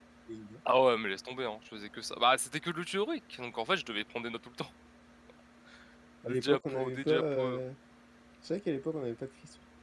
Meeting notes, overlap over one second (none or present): present